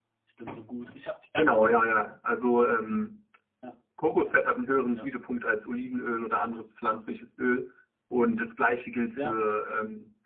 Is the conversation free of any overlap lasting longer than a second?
Yes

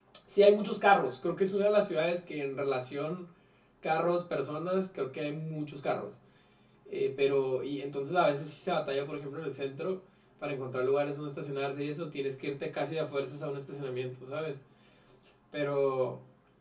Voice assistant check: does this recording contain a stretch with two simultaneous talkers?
No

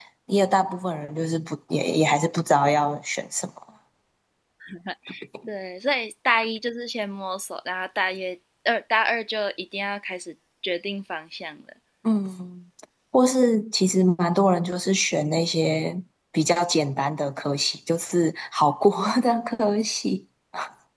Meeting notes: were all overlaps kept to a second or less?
Yes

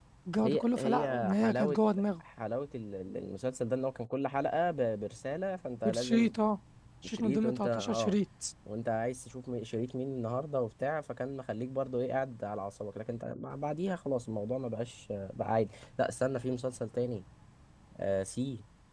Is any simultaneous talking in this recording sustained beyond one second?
Yes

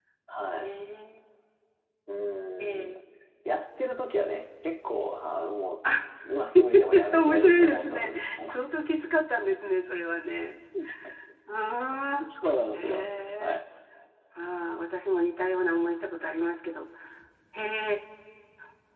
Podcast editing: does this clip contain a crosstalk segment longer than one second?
Yes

